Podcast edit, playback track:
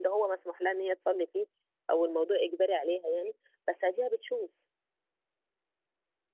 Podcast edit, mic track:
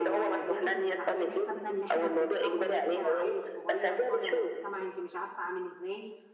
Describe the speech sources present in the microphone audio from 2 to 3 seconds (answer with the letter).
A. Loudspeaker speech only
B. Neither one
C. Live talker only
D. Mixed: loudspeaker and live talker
D